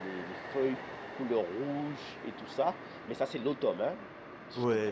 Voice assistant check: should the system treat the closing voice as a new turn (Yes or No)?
Yes